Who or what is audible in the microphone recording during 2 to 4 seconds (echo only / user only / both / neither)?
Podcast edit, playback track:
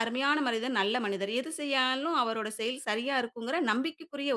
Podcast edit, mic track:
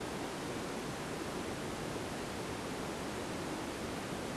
neither